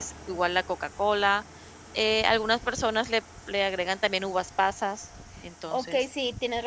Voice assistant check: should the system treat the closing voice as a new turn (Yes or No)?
Yes